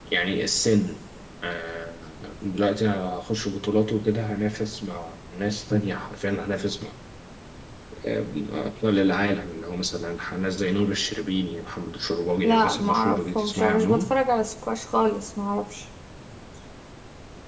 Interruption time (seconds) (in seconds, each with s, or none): 12.4 s